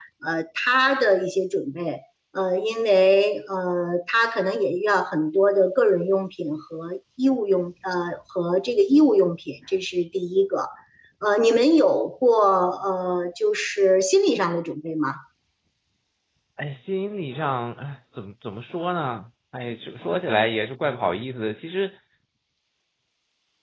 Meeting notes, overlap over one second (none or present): none